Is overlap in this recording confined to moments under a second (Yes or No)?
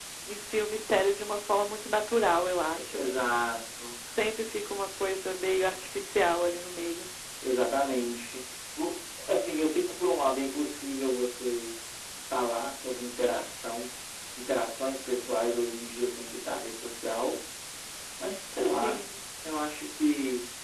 Yes